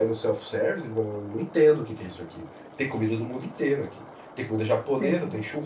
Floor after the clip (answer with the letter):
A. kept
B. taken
A